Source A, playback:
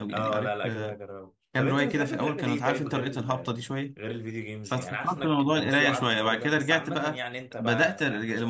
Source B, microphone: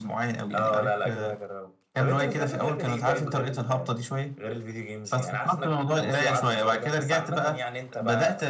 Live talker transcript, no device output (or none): none